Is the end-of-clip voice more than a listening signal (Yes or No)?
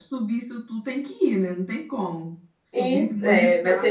Yes